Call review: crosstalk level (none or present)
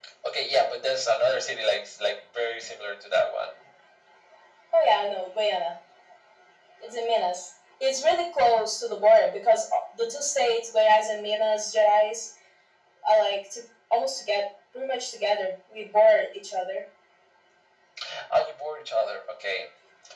none